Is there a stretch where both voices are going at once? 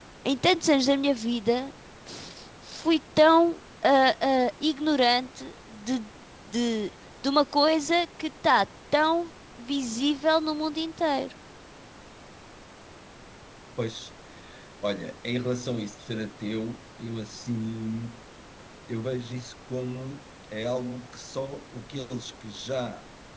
No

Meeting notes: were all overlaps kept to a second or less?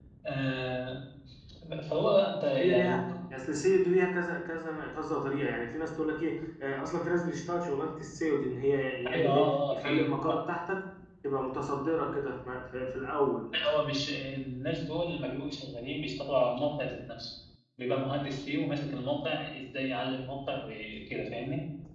No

